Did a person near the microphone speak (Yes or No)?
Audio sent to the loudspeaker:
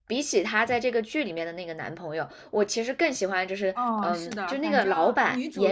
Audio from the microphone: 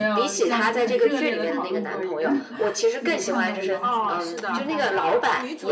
Yes